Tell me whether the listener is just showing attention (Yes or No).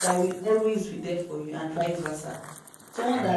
Yes